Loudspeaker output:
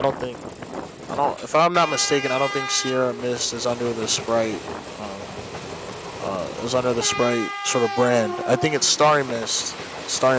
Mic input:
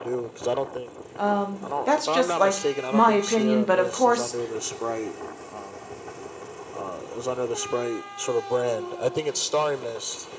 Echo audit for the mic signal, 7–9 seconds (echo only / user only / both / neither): echo only